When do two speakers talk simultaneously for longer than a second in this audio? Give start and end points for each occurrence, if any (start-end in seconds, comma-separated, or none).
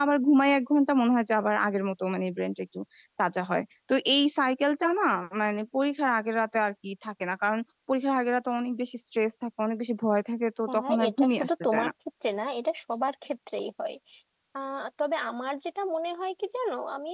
10.7-11.9